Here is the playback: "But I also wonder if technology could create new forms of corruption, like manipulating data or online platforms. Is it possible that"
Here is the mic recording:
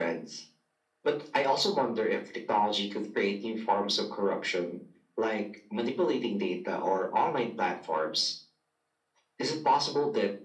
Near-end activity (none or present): none